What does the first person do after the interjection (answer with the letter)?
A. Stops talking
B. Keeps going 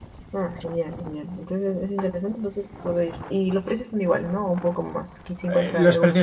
A